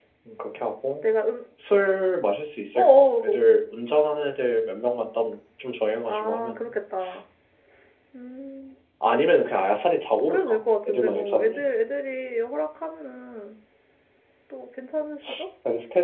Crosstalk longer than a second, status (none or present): present